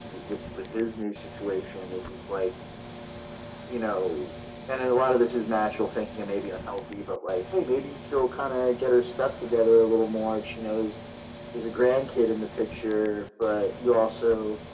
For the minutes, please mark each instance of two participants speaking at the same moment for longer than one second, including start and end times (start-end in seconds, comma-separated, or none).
none